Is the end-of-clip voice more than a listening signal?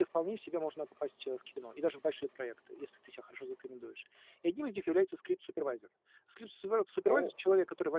No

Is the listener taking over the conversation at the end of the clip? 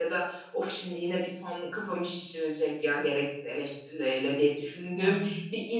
No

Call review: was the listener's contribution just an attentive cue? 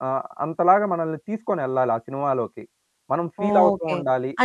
No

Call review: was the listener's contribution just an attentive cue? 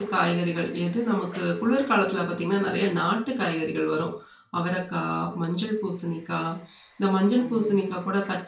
Yes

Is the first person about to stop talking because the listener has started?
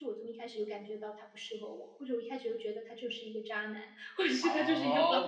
Yes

